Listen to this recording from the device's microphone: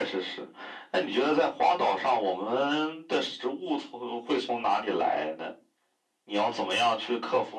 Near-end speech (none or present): none